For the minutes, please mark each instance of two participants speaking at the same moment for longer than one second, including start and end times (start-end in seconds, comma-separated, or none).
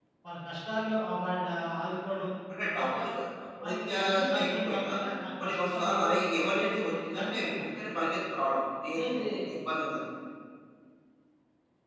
3.6-4.9, 5.4-7.6